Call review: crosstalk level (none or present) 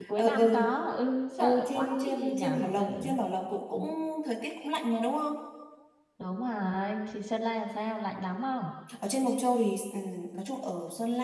present